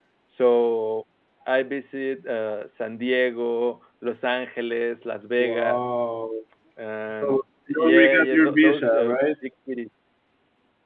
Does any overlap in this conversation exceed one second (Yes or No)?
Yes